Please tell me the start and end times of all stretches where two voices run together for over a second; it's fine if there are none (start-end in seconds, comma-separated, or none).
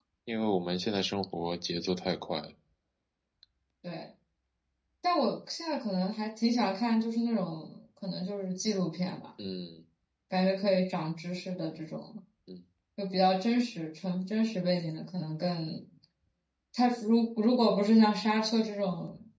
none